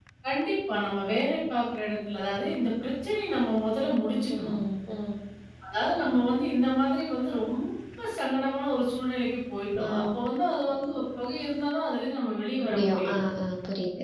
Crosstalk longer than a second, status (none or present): none